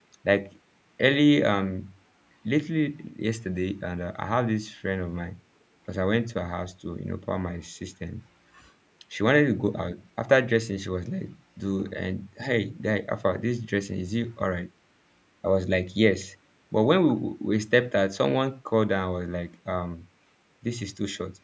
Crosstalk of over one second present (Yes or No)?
No